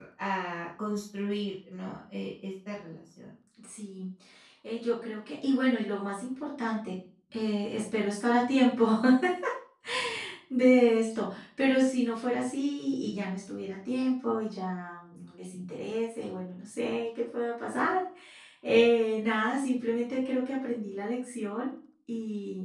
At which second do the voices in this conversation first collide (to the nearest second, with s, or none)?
none